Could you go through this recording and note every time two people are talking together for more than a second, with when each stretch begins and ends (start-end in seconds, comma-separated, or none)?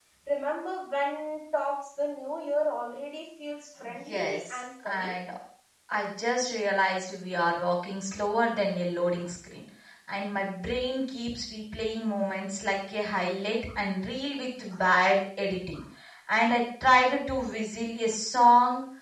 3.8-5.1